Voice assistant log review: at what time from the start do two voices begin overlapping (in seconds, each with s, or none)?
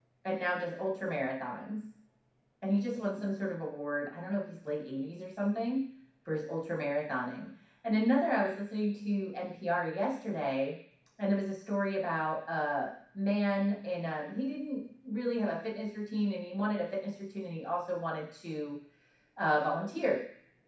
none